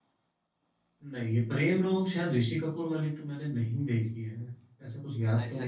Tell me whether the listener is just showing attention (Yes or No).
No